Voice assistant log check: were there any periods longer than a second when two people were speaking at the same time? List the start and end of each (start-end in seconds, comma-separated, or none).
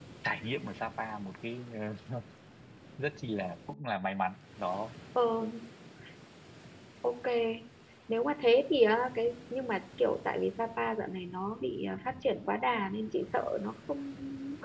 none